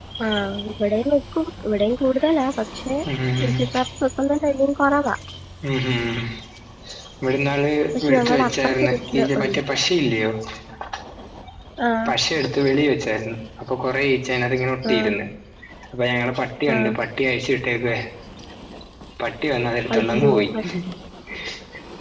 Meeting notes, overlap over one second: present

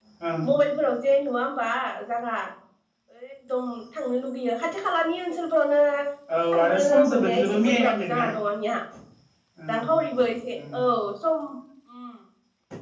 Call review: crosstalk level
present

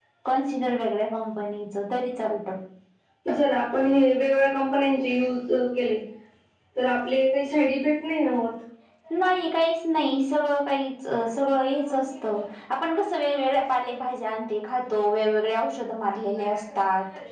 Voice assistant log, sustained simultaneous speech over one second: none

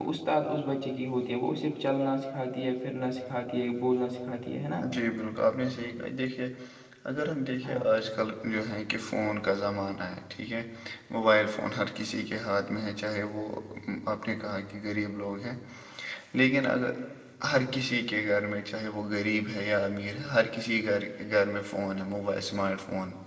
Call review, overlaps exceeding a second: none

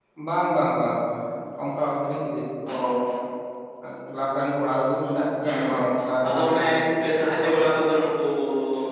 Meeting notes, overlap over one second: none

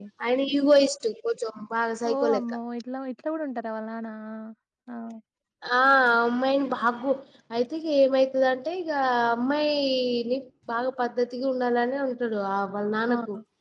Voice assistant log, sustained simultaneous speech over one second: none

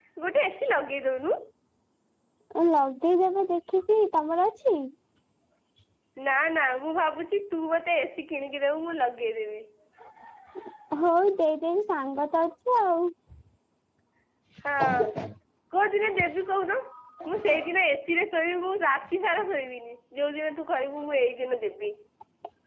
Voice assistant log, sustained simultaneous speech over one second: none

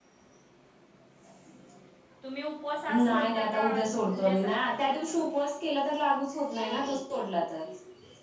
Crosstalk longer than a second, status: present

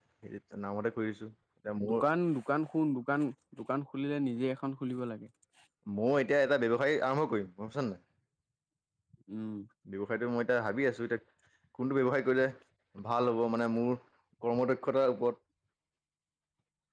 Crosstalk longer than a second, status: none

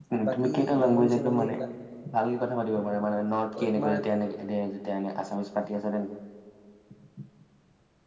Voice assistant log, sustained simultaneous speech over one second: present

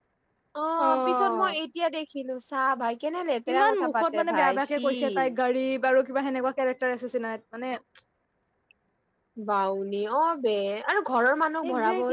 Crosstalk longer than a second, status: present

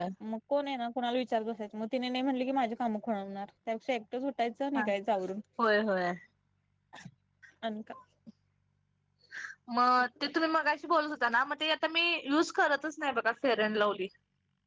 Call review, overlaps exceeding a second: none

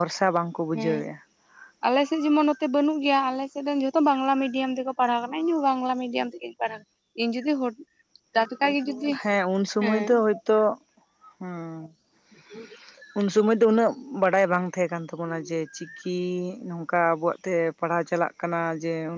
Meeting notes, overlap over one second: none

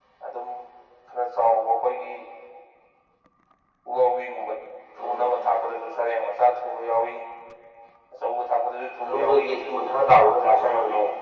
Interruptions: present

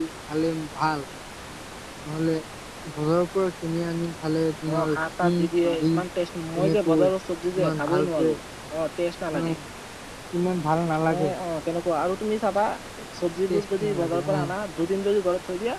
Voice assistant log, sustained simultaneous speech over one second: present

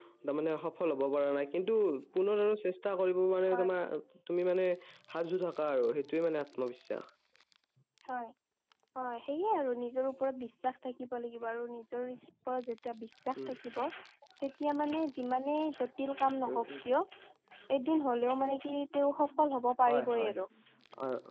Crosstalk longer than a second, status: none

